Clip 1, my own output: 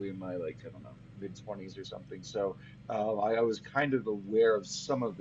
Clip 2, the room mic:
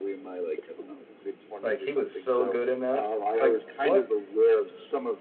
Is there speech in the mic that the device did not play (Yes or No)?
Yes